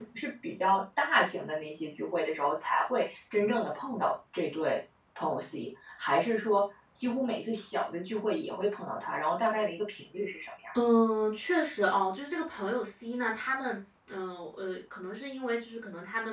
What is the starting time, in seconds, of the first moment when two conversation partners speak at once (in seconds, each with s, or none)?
none